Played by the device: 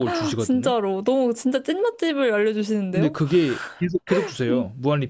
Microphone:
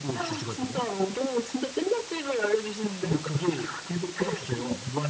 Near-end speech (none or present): none